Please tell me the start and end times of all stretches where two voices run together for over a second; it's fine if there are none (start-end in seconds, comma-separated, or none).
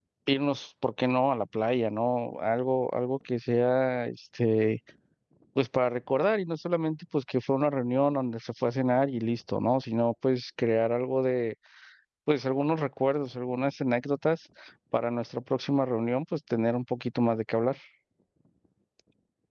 none